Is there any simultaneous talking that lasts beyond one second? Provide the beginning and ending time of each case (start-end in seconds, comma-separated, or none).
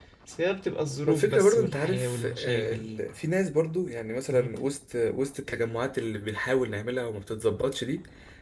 1.1-2.8